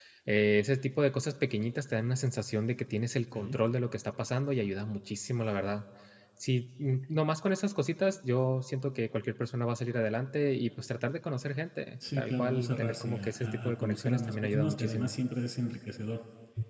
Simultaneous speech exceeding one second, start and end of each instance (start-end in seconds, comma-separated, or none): 12.2-15.1